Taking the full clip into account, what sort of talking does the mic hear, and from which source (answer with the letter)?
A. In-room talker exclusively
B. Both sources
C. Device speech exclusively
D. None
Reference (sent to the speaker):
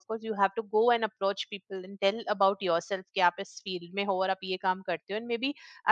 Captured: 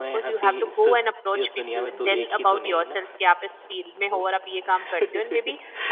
B